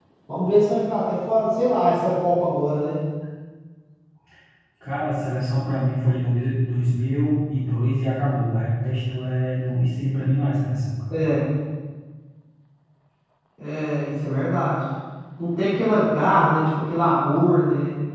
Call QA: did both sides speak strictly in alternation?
Yes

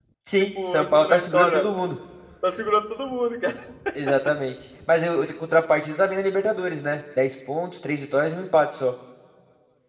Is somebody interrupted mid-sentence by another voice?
Yes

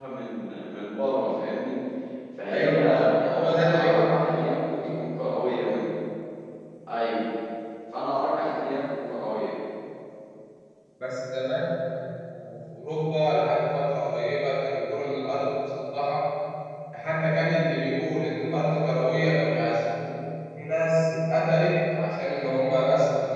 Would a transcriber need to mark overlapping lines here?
Yes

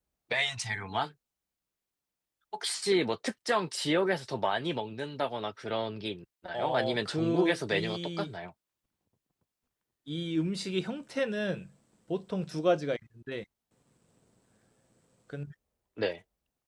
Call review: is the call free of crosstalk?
No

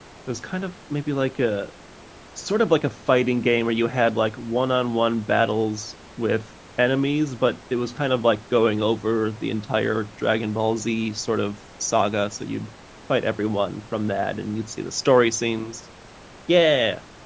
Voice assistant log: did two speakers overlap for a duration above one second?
No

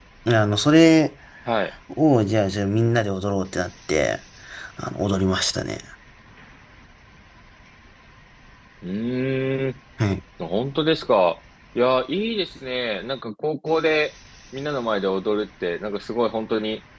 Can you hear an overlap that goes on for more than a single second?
No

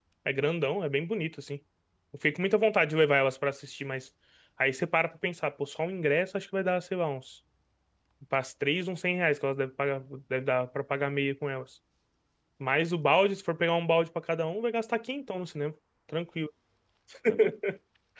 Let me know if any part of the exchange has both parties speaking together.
No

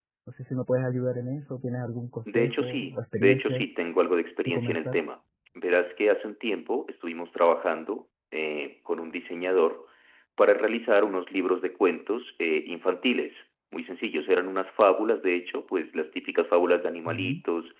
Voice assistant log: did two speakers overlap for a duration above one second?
Yes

